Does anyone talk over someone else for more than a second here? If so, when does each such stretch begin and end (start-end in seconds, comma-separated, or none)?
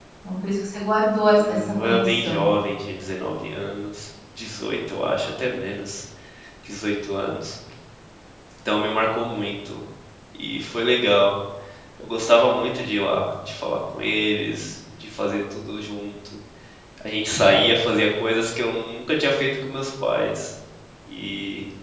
1.2-2.5